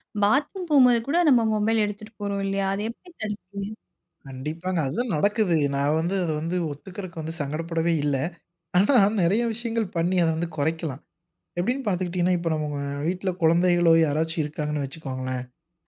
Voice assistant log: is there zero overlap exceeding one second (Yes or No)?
Yes